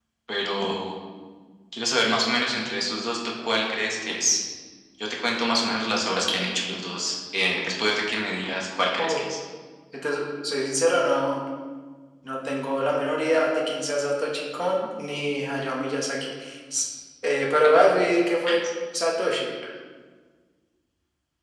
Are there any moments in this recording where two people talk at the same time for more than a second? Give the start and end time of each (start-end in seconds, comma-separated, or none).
none